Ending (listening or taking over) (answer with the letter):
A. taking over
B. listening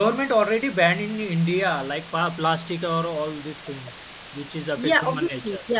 A